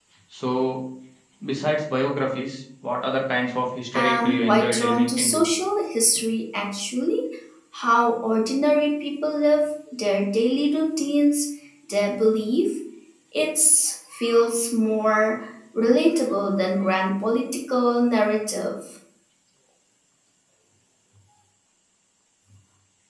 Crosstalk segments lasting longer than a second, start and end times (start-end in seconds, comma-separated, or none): 3.9-5.5